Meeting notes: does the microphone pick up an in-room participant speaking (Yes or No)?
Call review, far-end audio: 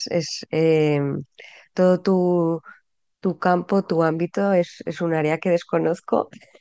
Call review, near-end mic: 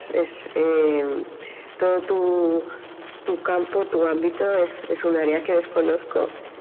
No